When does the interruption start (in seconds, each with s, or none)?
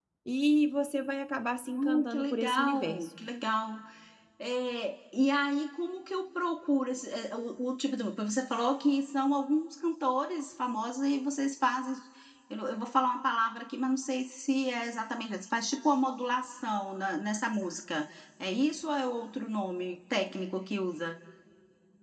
1.8 s